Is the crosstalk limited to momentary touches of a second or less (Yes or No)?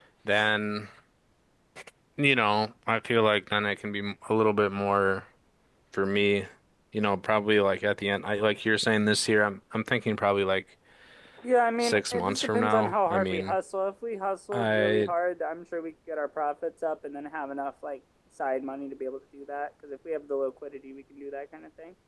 No